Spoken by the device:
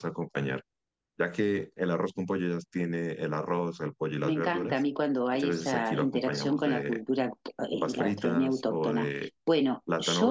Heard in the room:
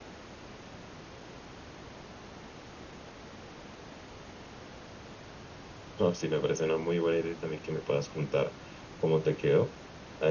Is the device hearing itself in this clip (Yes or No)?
No